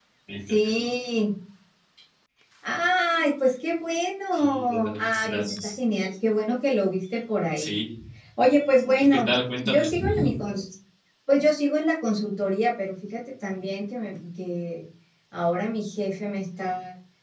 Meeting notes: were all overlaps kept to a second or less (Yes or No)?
No